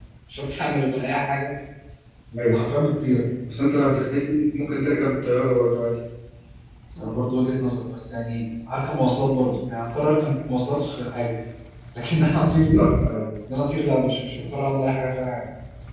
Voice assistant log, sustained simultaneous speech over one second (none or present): none